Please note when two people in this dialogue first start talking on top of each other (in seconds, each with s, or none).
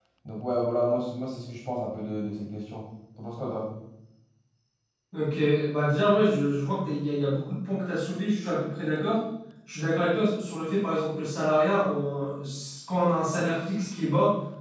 none